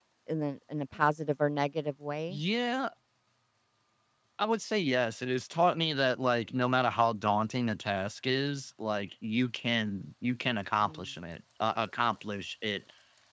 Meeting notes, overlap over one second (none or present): none